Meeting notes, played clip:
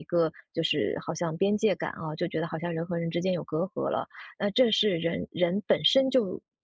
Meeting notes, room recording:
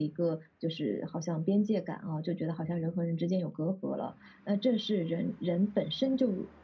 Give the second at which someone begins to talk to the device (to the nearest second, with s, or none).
none